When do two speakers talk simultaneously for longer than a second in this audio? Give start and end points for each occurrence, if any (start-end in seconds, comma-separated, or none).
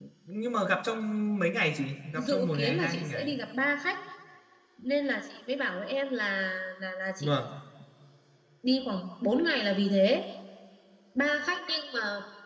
2.1-3.4